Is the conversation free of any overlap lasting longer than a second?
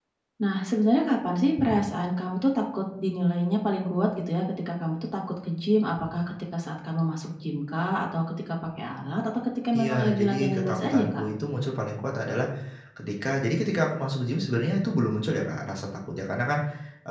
No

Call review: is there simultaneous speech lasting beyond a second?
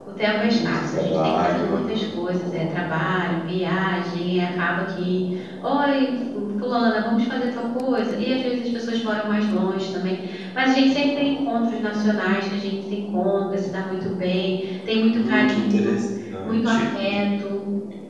Yes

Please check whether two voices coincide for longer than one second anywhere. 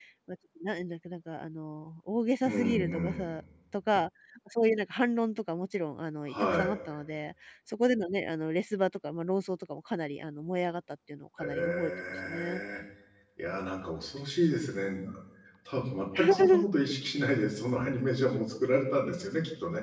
Yes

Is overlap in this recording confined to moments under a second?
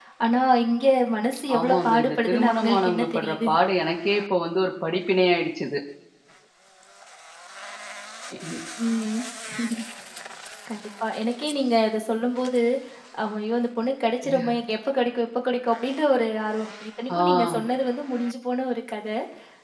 No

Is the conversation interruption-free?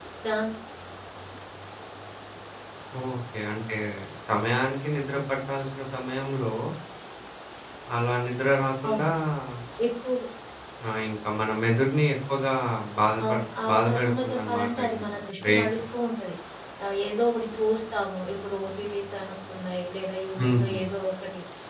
No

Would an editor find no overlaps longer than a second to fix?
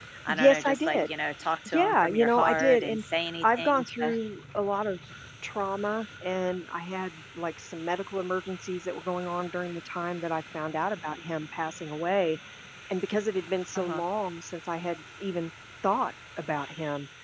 No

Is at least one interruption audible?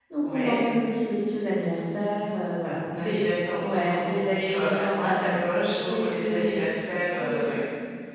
Yes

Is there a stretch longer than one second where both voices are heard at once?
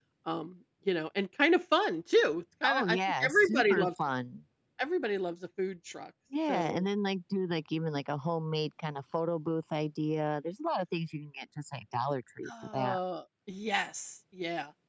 Yes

